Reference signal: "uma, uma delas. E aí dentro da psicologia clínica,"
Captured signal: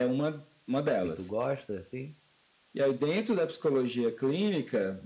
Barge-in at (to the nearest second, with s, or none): 1 s